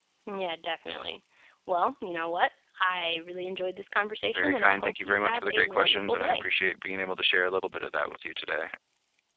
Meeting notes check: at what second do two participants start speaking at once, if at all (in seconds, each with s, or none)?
4.3 s